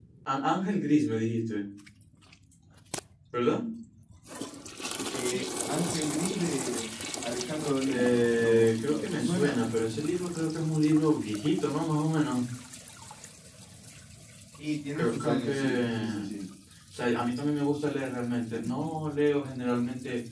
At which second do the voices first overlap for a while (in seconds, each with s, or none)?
7.9 s